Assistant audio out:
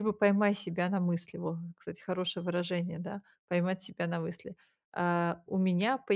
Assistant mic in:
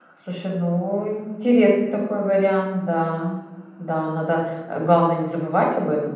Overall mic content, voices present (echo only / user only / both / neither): user only